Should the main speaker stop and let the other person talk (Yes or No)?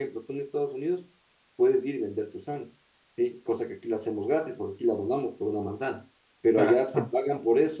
No